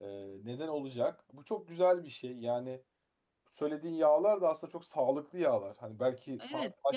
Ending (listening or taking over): taking over